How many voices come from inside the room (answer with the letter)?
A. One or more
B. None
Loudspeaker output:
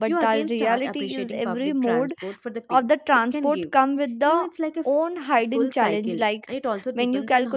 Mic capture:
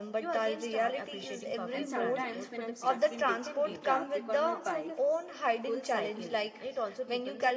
A